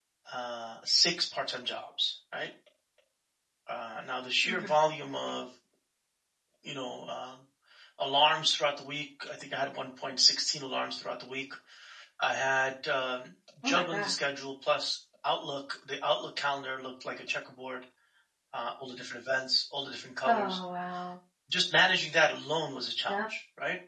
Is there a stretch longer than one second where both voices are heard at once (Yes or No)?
No